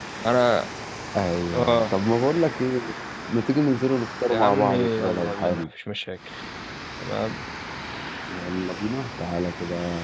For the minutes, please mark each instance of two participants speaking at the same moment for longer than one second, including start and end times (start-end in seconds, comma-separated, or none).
4.3-5.6